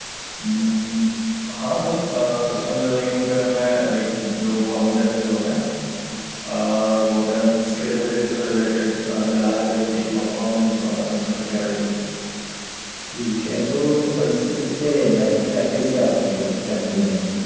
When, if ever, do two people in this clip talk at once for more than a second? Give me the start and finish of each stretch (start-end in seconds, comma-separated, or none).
none